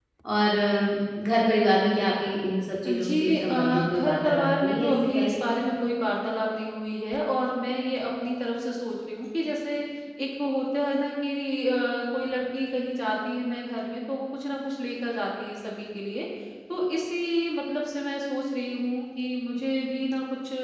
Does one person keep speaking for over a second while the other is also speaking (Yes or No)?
Yes